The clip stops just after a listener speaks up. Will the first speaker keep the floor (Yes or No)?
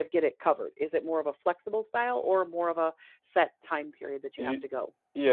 No